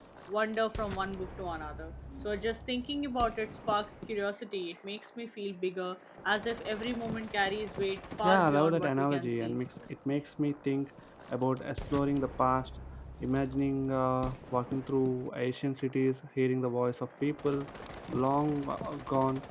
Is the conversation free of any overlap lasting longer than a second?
No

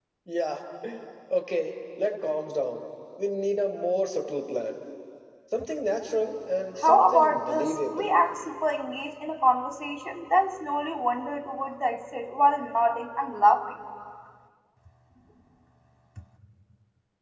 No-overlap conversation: No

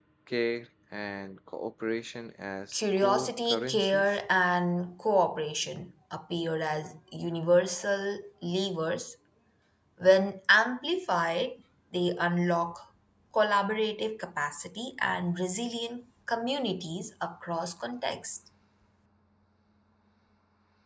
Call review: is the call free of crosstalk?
No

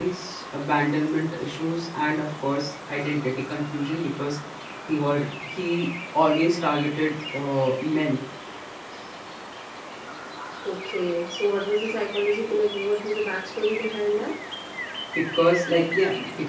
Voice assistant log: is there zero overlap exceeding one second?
Yes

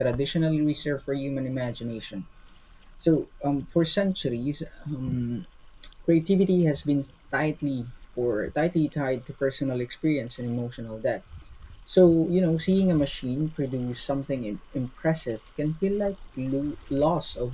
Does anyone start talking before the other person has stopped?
No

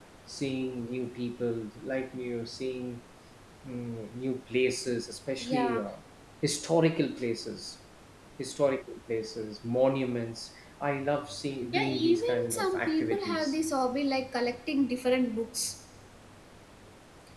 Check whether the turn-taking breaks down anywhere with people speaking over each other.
Yes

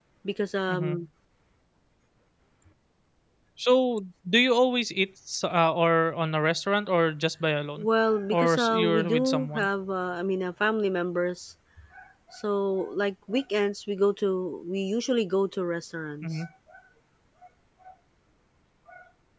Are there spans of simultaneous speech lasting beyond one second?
Yes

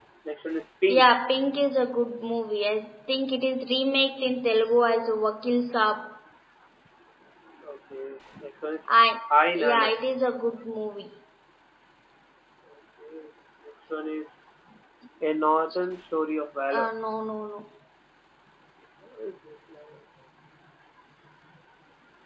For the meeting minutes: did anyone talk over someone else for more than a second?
No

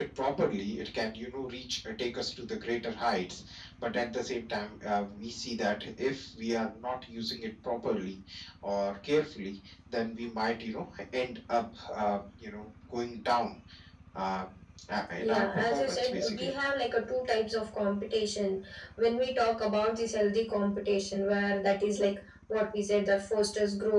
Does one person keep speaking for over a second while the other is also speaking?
Yes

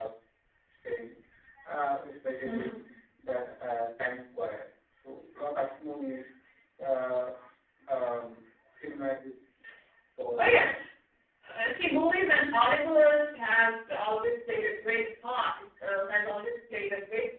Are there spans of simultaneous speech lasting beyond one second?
No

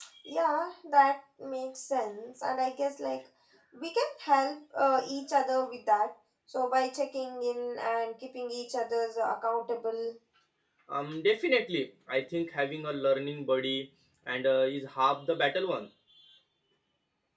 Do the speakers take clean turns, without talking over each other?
Yes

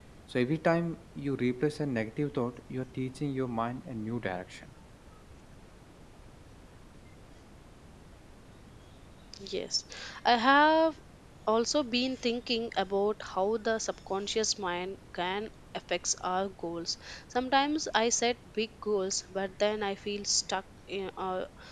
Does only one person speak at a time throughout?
Yes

